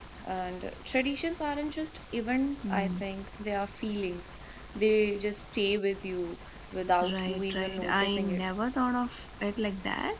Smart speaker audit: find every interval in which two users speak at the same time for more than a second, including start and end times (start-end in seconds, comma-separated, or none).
7.1-8.4